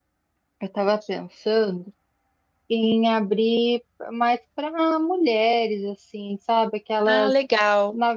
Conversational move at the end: listening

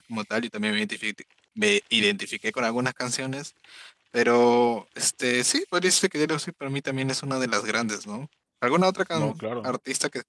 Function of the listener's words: listening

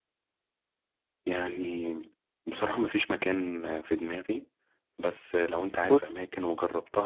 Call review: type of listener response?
listening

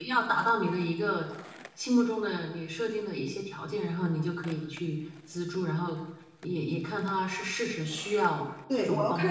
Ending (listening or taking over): taking over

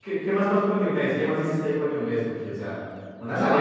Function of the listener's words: taking over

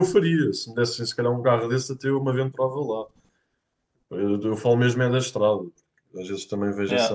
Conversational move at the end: listening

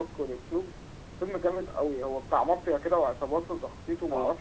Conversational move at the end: listening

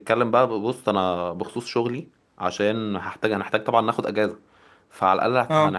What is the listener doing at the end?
listening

